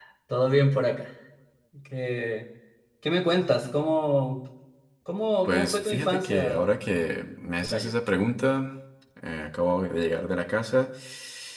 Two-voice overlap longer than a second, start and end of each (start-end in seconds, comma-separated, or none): 5.4-6.7